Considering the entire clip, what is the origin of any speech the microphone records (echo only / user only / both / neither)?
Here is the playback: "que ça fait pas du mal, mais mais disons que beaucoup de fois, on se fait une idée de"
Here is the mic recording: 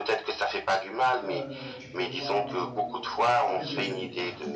both